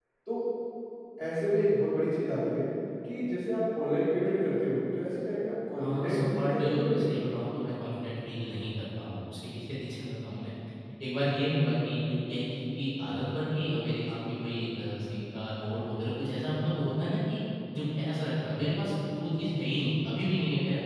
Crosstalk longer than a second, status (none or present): present